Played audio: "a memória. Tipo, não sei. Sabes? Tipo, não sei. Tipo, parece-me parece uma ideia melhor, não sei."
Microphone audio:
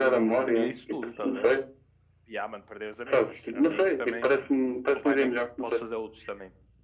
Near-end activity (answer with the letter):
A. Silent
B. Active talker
B